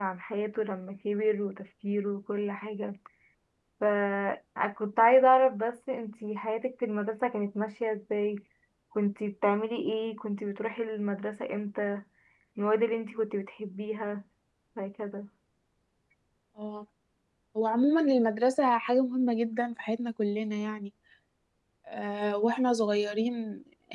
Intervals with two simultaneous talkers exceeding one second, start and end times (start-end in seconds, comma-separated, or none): none